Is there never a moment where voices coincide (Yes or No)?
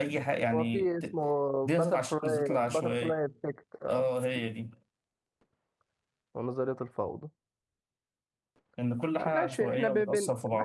No